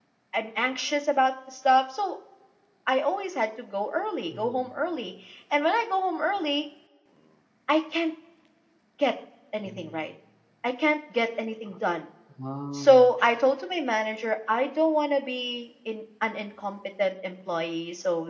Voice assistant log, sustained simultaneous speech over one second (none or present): none